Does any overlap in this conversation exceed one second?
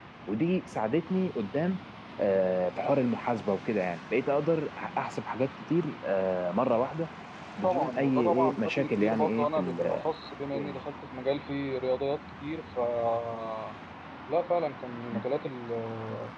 Yes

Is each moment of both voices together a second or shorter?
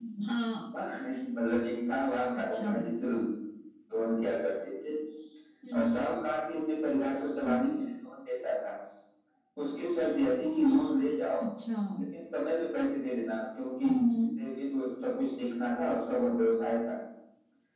Yes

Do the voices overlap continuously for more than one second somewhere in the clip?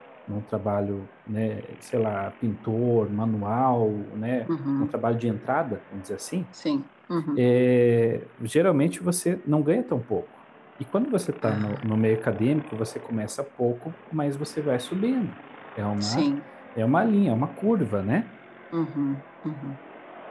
No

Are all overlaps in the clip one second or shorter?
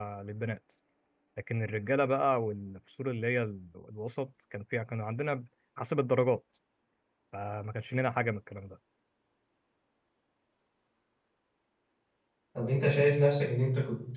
Yes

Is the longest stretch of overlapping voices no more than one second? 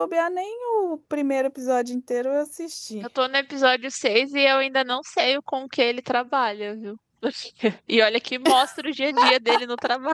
Yes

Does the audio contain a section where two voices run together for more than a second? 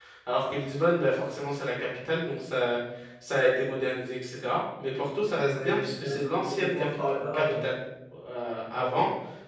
Yes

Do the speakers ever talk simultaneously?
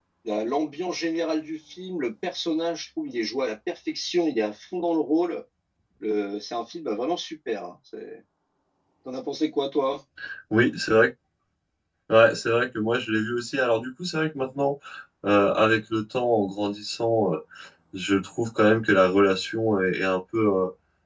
No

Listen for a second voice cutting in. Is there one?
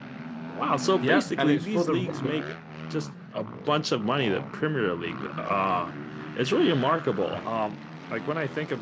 Yes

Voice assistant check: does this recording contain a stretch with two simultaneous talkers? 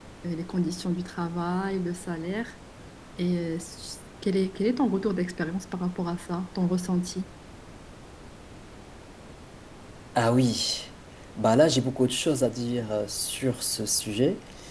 No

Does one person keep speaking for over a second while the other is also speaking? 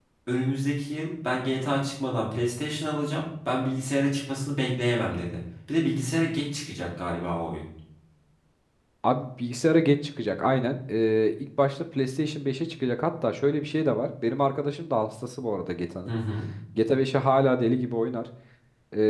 No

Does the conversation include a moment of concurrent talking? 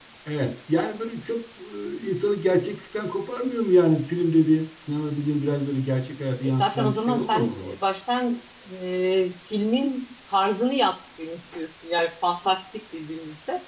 Yes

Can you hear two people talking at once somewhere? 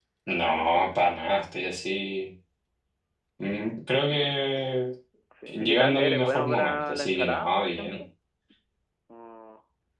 Yes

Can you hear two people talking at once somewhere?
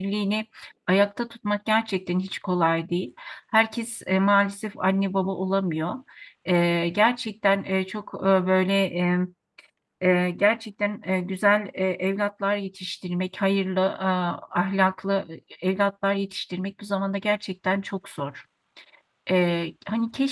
No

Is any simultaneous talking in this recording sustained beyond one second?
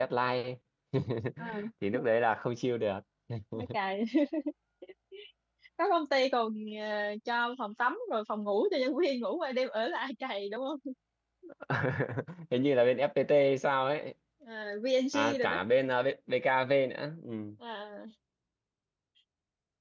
No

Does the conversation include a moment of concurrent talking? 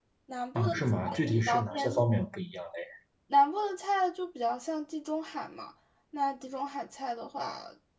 Yes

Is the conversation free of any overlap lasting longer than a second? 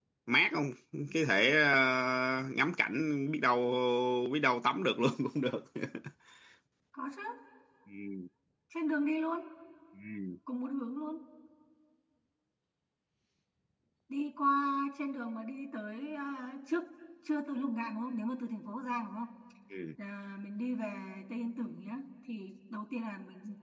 Yes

